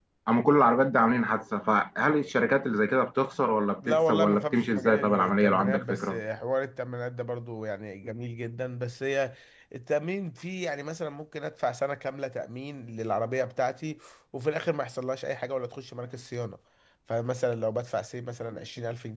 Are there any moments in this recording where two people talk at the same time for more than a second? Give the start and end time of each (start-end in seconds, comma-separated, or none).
3.8-6.2